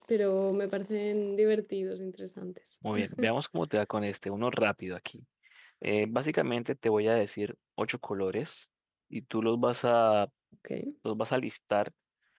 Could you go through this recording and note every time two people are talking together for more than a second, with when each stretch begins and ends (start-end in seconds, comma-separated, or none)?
none